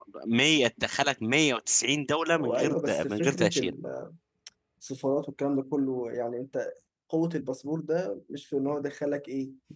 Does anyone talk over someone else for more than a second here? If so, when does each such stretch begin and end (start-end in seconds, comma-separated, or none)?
2.4-3.7